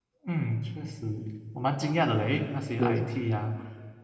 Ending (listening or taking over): listening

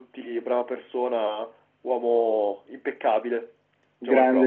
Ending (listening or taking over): taking over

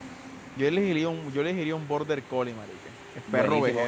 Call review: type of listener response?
taking over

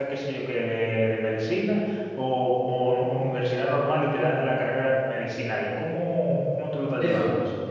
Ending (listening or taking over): taking over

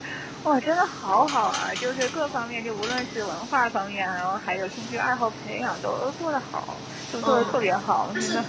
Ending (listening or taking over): taking over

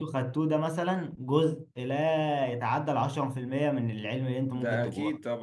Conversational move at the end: taking over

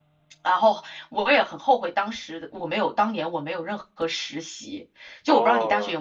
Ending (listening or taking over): taking over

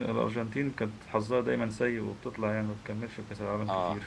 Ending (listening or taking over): taking over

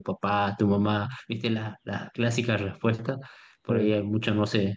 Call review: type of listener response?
listening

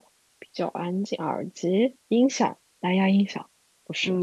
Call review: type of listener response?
taking over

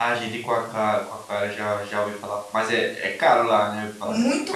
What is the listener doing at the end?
taking over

